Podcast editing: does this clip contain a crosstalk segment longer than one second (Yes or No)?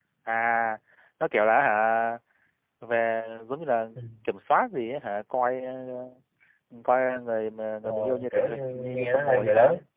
Yes